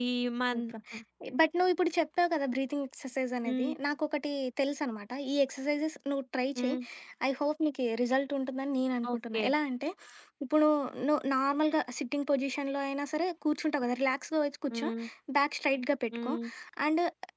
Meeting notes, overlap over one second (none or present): none